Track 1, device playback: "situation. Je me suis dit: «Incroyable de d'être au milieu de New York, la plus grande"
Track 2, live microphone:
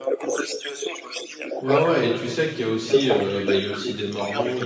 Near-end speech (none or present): present